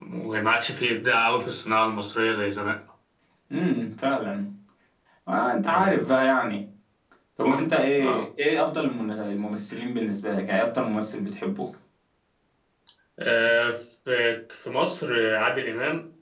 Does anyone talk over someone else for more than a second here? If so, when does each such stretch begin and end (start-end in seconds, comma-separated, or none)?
none